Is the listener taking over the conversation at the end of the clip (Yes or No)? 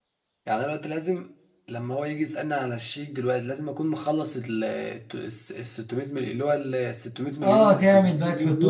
Yes